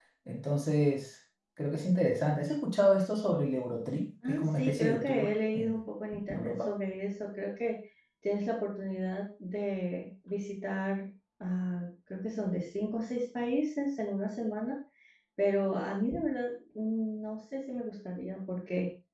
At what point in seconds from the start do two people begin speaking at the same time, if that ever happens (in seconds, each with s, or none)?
4.3 s